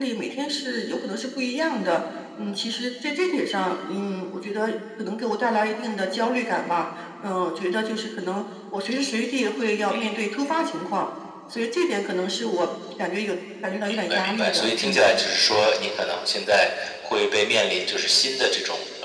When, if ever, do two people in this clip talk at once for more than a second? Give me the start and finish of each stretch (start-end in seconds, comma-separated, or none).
13.9-15.1